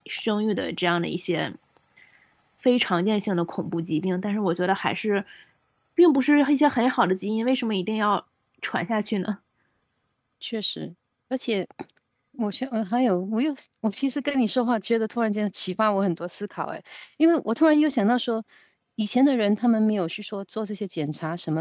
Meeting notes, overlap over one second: none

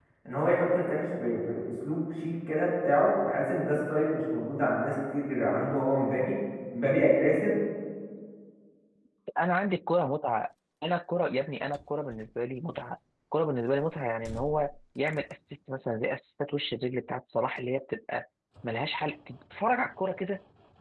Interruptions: none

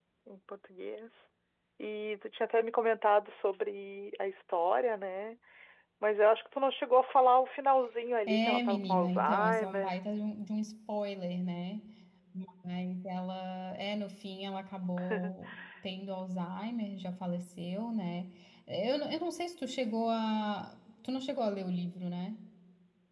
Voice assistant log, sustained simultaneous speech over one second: present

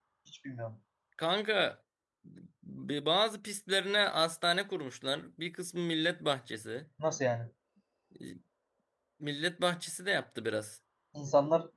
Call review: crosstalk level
none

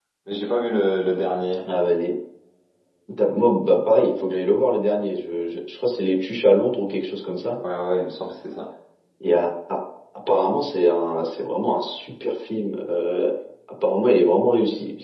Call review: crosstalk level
none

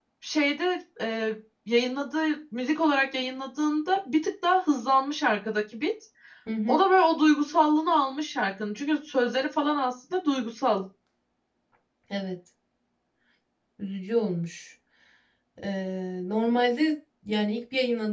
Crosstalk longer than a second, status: none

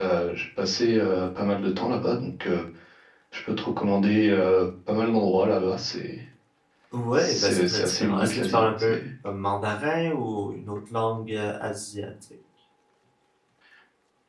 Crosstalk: present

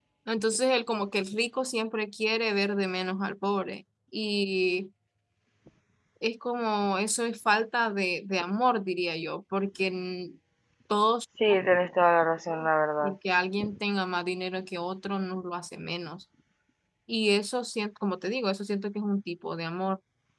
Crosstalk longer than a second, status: none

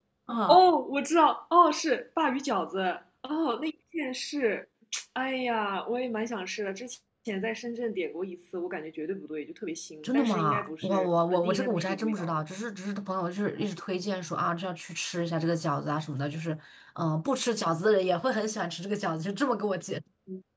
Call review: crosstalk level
present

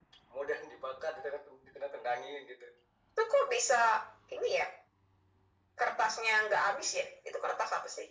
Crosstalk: none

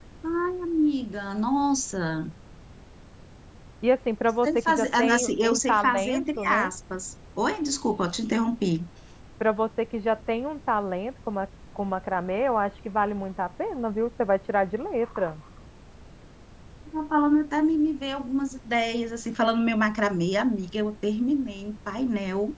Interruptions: present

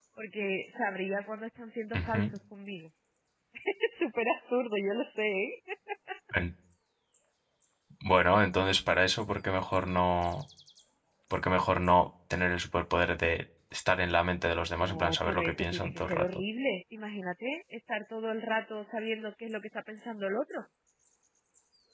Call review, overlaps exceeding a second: present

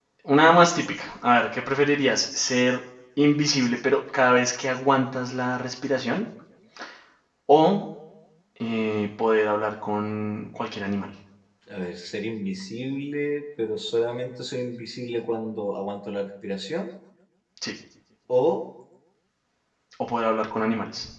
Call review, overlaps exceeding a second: none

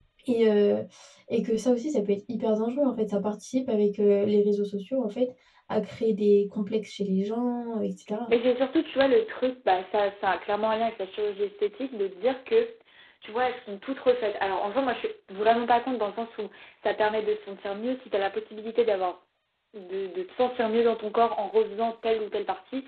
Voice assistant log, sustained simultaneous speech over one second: none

